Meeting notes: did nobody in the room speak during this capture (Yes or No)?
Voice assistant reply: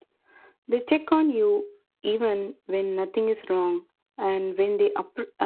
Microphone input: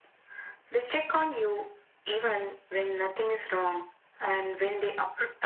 Yes